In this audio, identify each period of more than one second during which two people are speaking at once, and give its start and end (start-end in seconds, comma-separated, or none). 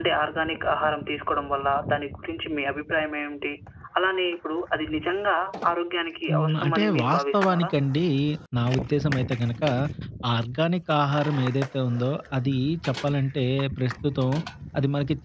6.3-7.7